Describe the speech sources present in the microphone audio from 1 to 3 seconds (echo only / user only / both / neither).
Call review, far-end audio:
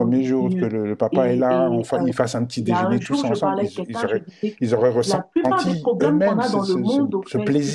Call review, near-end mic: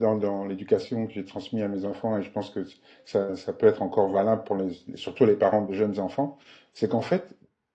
user only